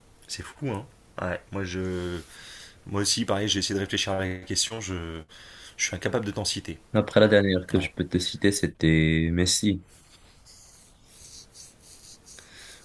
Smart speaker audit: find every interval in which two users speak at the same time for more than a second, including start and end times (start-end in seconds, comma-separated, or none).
none